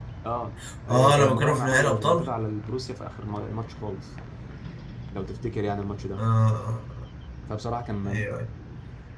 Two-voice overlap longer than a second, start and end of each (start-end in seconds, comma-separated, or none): 0.9-2.3